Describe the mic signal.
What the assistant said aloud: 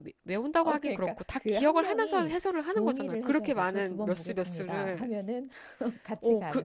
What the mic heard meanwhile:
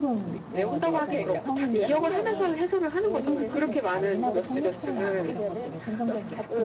both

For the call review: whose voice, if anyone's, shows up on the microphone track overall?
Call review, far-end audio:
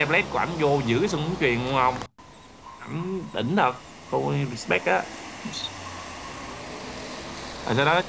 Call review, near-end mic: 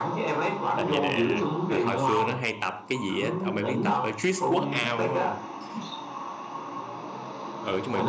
both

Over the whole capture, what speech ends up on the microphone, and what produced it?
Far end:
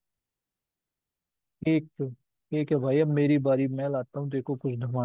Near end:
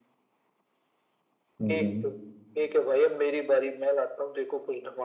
both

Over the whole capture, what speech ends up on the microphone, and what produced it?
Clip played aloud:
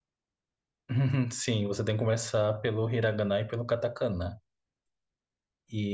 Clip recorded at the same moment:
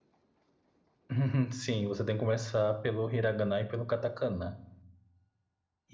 echo only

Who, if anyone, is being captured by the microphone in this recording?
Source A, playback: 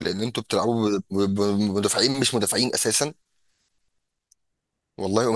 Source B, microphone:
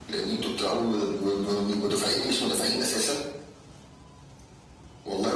echo only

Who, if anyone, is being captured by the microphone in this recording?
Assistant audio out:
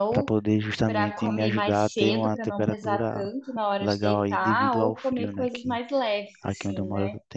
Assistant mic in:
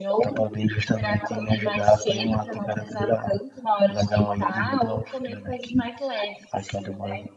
echo only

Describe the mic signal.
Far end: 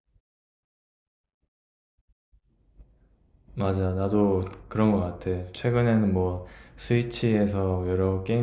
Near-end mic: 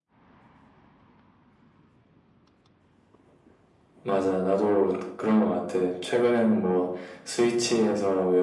echo only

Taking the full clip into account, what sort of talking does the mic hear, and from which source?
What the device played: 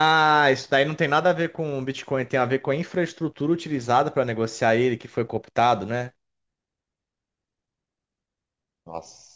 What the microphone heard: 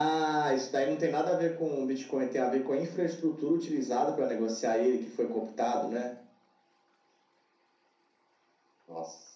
echo only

